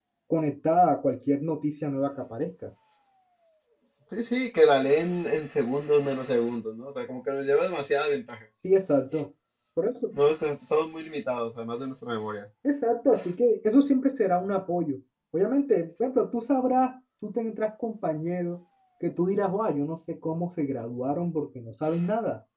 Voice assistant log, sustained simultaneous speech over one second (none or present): none